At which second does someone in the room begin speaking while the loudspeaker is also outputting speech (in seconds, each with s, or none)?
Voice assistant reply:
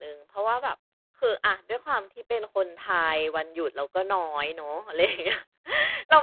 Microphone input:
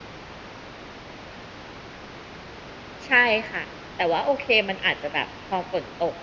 3.1 s